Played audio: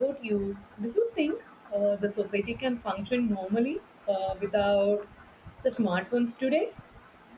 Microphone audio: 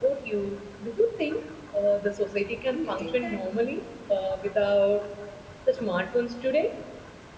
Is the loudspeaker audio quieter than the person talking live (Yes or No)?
No